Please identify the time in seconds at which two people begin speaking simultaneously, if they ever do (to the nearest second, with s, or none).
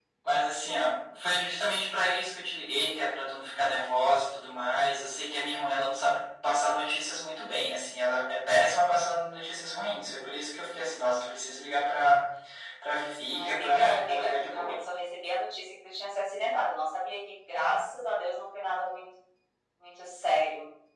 13 s